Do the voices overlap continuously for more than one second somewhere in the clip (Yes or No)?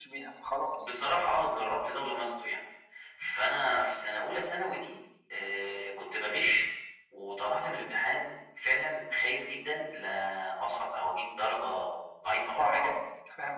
No